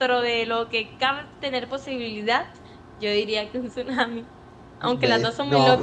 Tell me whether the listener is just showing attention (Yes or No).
No